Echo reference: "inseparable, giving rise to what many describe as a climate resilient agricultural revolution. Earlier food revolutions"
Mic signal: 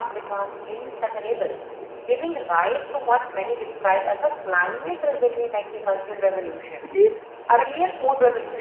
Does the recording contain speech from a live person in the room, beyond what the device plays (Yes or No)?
Yes